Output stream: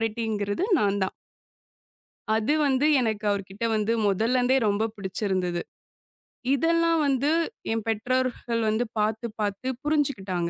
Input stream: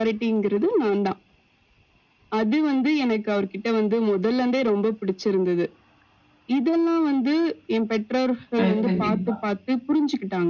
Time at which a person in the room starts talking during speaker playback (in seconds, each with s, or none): 8.6 s